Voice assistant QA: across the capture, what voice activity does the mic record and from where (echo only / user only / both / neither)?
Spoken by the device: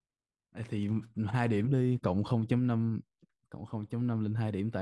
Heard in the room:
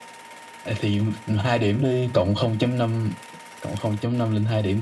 echo only